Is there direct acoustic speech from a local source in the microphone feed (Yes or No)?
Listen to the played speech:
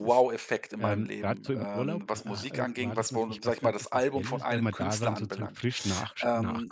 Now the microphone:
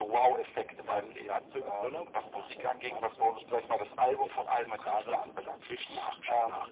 No